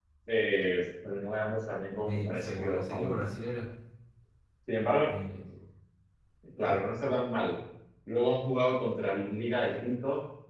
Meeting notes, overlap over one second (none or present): present